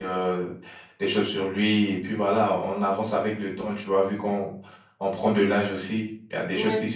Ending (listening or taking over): listening